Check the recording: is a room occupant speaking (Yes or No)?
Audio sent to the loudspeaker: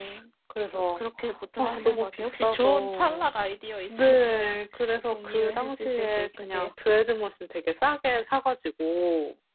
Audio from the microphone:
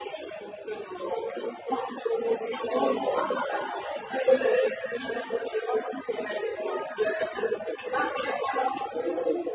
No